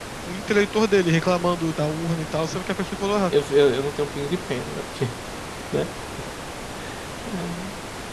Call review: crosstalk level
none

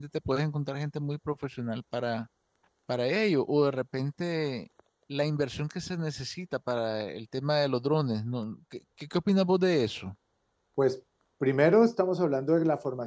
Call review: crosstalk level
none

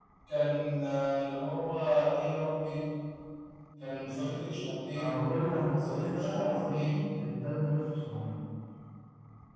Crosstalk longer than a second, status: present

